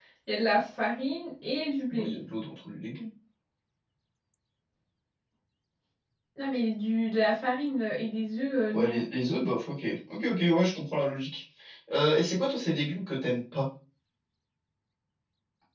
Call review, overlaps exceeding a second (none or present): none